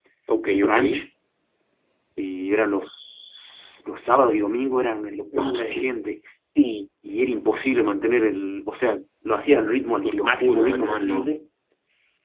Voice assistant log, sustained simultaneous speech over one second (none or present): present